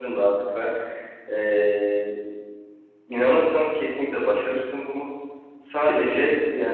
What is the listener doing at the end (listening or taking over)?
listening